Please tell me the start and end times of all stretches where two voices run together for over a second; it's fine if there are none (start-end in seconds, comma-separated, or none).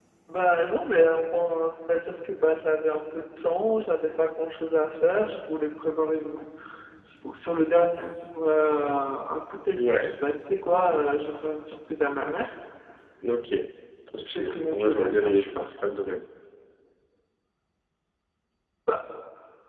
14.2-15.9